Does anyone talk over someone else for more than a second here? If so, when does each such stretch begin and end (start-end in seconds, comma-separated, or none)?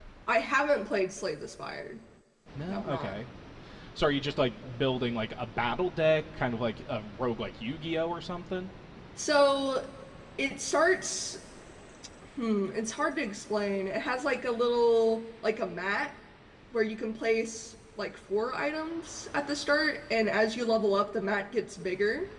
none